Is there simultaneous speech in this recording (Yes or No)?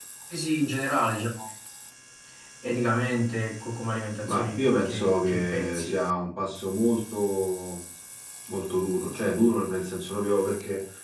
Yes